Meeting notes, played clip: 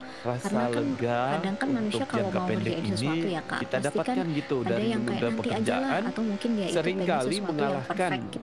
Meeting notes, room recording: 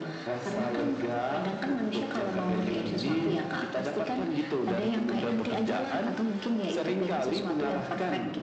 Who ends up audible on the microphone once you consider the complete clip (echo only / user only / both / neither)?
echo only